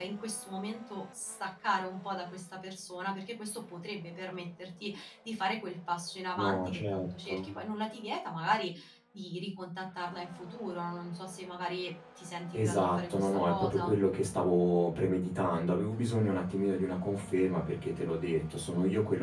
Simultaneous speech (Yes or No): Yes